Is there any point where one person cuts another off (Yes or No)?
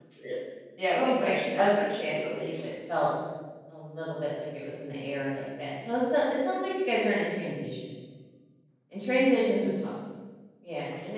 Yes